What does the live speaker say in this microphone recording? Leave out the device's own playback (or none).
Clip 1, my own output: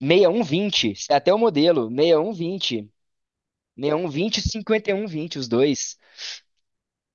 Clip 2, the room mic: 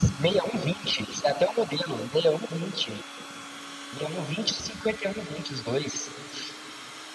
none